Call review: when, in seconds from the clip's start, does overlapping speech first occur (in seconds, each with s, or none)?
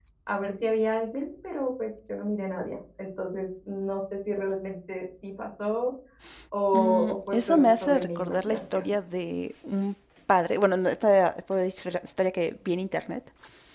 6.7 s